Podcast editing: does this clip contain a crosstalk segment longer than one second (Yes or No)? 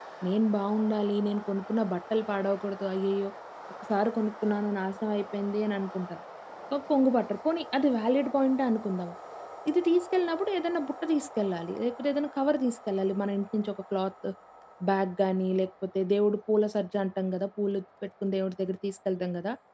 No